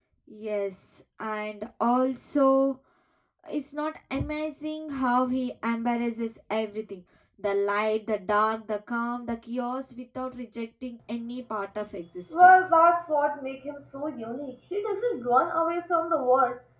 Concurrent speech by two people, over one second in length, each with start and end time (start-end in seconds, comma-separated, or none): none